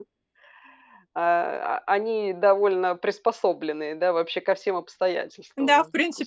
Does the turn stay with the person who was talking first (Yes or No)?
No